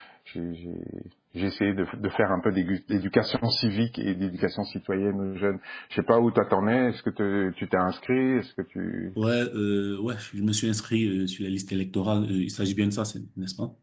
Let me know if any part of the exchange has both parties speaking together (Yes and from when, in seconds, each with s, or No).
No